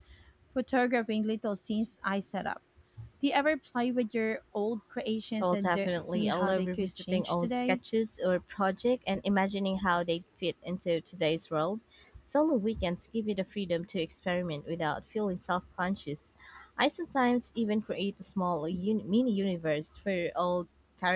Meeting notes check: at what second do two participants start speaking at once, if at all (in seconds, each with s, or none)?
5.4 s